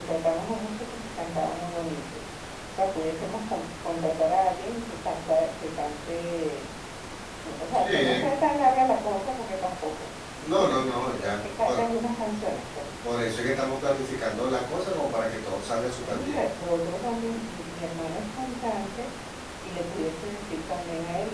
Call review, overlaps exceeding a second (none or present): present